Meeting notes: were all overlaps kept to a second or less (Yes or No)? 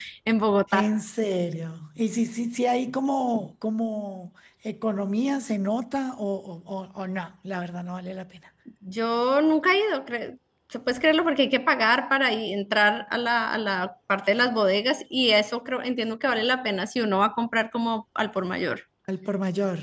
Yes